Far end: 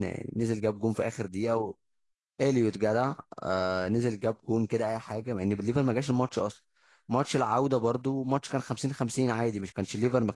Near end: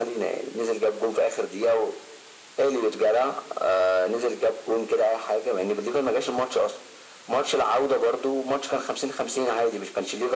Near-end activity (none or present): none